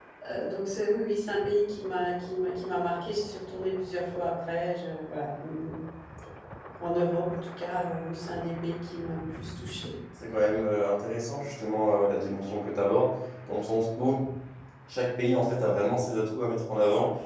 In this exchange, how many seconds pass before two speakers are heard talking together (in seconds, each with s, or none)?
none